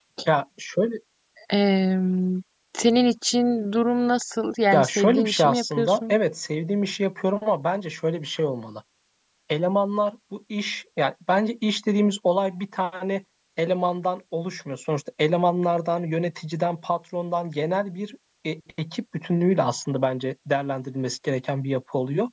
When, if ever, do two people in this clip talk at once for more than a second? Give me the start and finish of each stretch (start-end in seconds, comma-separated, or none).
4.7-6.2